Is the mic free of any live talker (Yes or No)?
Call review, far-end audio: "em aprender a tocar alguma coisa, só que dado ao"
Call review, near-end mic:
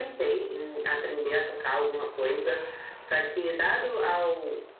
Yes